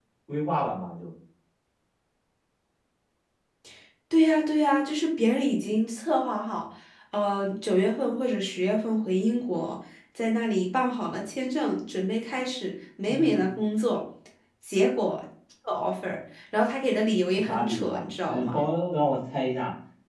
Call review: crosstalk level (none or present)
present